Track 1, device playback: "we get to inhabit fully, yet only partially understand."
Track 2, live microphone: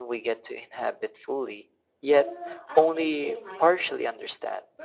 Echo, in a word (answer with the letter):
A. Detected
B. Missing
A